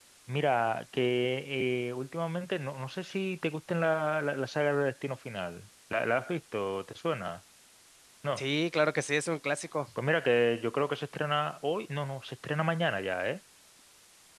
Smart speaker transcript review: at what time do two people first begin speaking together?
none

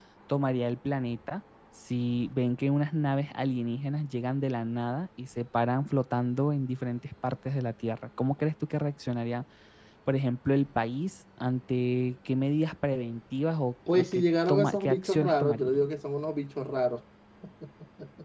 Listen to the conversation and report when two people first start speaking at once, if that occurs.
13.9 s

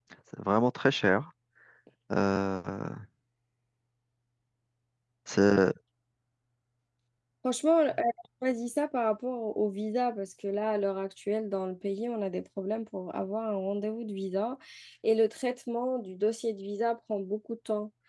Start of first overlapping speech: none

